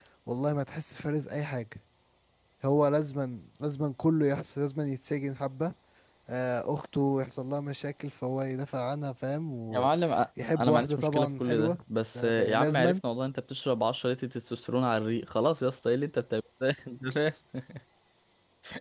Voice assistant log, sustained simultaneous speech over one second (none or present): present